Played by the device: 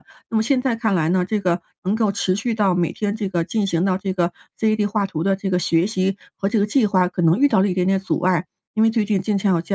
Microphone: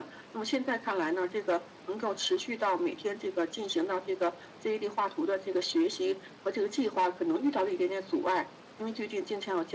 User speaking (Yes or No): No